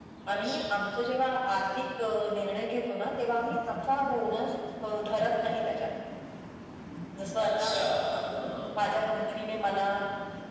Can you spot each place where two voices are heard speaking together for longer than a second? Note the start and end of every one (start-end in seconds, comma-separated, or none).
none